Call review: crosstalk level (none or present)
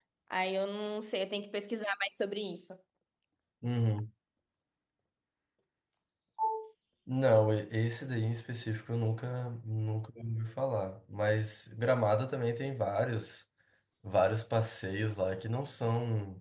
none